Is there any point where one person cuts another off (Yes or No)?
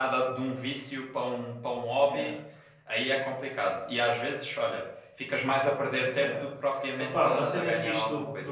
Yes